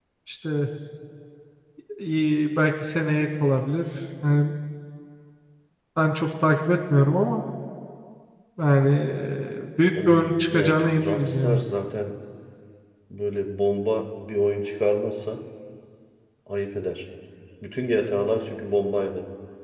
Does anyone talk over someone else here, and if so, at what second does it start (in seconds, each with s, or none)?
9.8 s